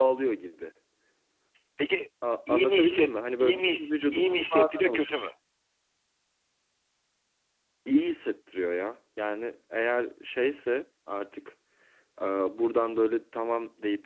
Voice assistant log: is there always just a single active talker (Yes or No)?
No